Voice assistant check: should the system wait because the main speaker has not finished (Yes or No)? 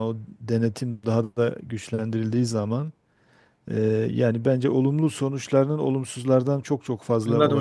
No